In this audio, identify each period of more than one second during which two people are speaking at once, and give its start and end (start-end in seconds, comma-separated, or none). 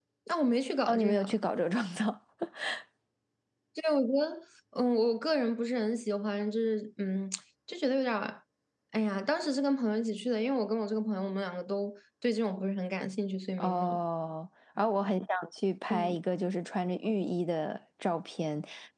none